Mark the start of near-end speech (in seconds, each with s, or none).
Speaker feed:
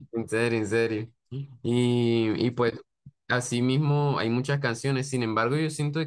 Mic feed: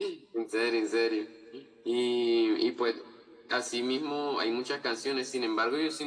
none